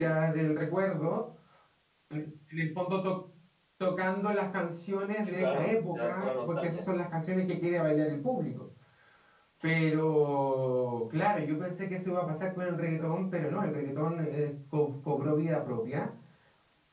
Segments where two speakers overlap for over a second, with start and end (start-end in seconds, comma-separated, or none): 5.2-6.8